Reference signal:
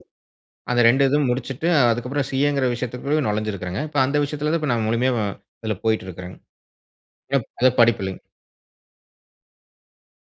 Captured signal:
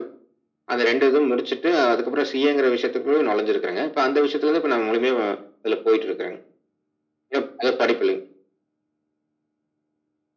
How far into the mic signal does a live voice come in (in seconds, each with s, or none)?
none